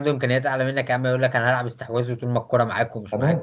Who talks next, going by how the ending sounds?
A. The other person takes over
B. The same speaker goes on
A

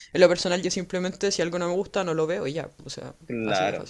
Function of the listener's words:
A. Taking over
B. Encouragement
A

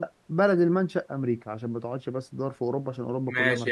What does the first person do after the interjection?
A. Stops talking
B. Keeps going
A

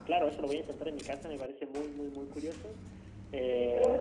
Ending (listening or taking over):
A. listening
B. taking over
B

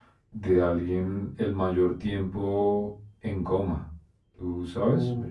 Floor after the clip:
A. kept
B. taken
B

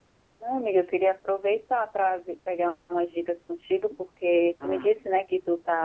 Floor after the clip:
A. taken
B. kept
B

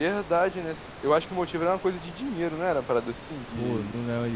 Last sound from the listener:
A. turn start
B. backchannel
A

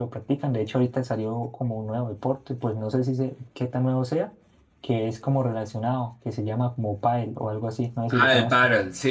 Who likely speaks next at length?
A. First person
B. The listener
B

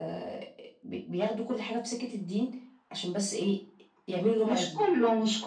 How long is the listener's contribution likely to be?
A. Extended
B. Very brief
A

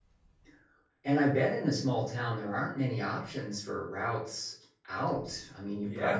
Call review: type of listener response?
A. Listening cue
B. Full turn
B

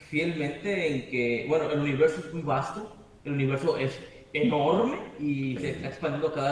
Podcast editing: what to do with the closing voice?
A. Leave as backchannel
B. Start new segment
A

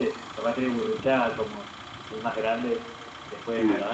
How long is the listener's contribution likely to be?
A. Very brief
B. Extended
A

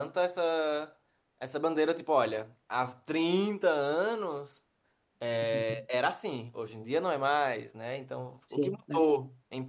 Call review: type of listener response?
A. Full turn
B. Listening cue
B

